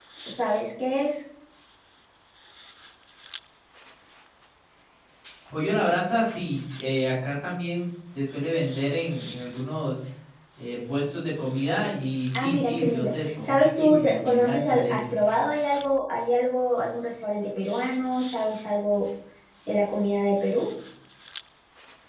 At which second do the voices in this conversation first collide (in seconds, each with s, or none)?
12.3 s